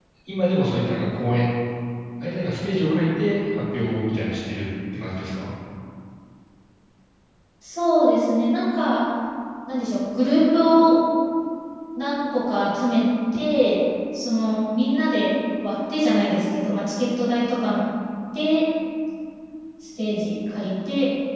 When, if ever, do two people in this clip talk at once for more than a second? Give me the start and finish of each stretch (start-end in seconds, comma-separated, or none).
none